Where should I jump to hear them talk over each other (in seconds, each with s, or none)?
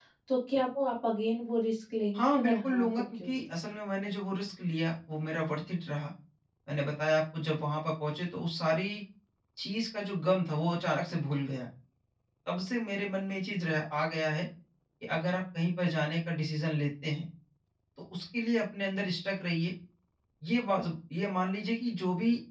2.1 s